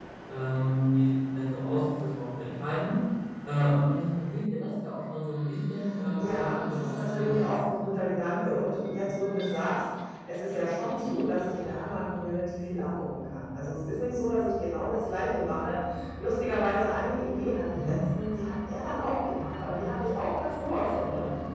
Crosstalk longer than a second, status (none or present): present